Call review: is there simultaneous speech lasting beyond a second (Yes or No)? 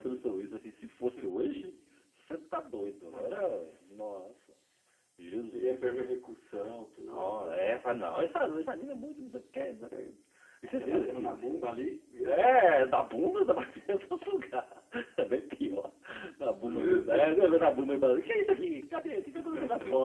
Yes